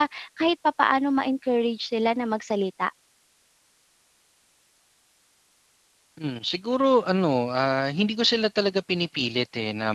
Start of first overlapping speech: none

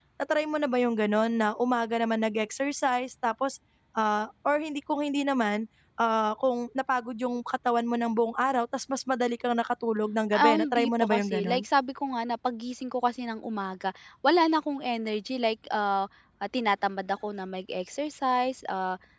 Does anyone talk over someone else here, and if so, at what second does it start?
10.3 s

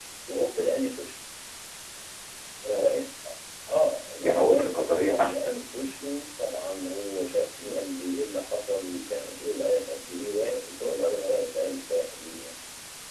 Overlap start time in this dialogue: 4.1 s

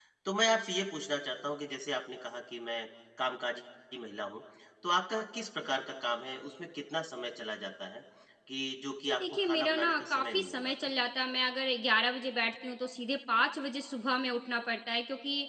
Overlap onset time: 9.0 s

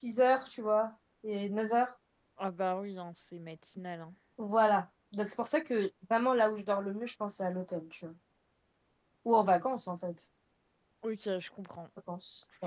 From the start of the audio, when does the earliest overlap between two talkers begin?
none

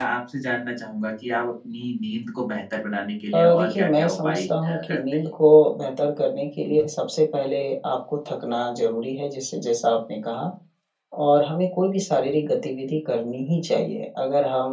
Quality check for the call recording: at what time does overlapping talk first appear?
3.3 s

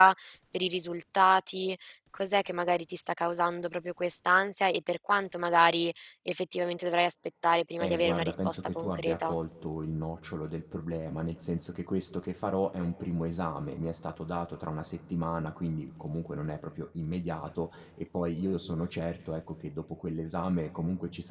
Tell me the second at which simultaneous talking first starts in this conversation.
7.8 s

